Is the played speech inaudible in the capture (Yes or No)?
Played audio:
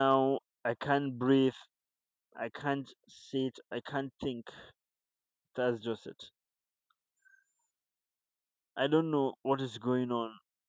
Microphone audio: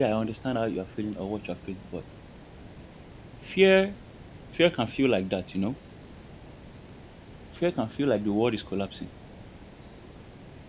Yes